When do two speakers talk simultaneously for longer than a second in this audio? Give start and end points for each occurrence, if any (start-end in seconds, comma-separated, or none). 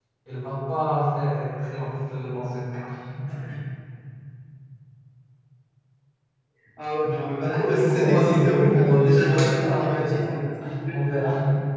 7.0-10.4